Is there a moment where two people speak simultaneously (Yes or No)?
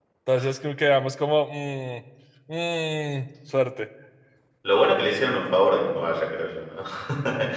No